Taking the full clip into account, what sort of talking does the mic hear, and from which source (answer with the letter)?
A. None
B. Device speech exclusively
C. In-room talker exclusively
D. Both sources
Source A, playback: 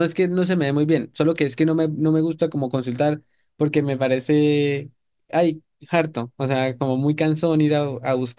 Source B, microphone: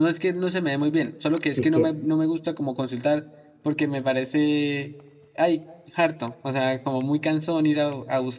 D